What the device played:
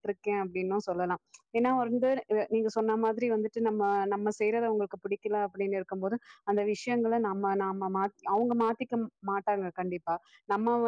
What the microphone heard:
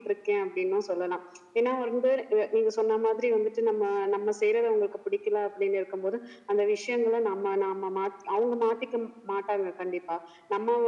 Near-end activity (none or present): none